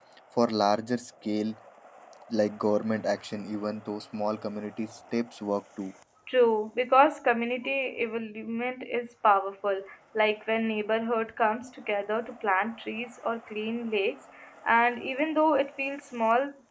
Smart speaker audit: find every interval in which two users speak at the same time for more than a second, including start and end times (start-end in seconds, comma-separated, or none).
none